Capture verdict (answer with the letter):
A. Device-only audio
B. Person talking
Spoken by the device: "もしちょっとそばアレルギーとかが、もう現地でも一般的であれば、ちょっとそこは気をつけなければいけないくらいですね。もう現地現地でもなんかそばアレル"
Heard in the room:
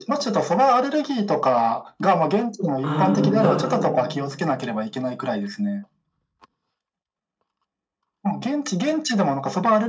B